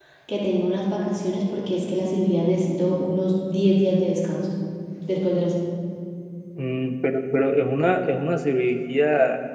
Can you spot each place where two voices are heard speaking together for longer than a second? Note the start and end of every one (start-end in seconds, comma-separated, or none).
none